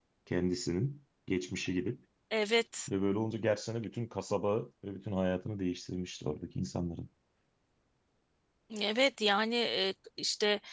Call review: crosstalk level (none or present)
none